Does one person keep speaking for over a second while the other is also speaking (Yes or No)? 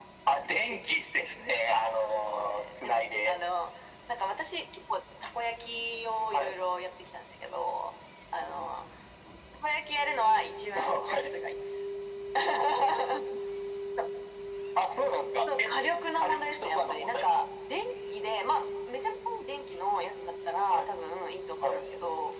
Yes